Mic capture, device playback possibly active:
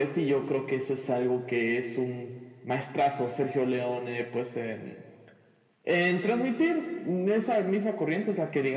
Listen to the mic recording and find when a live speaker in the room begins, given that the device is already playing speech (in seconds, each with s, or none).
none